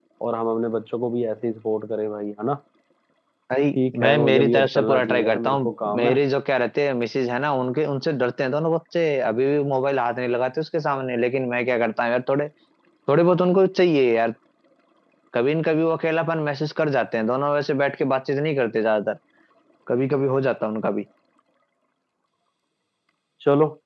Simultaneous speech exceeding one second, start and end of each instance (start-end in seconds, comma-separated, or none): 3.9-6.2